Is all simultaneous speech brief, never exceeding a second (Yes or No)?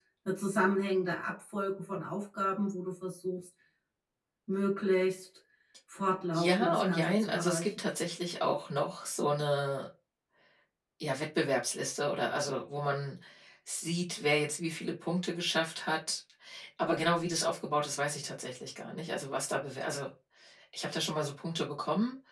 No